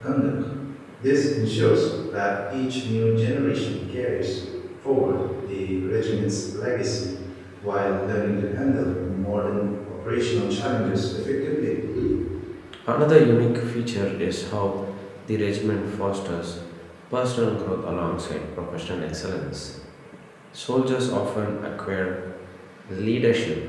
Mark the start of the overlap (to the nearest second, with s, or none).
none